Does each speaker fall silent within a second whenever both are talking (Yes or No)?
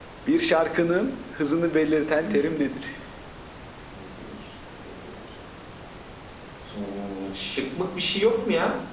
Yes